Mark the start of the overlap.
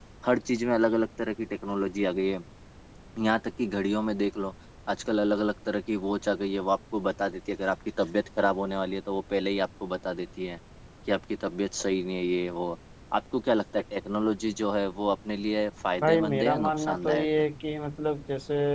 16.0 s

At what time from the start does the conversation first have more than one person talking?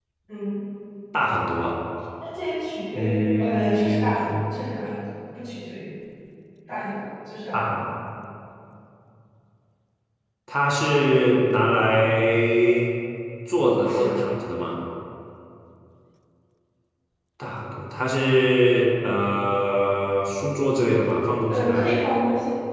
2.9 s

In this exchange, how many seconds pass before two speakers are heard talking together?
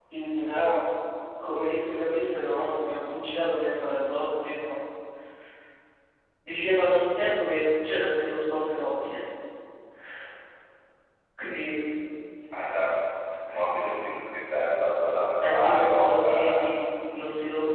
15.4 s

